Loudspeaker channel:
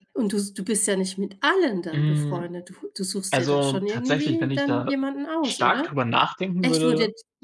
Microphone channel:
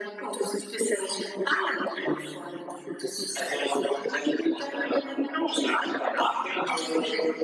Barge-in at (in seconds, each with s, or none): none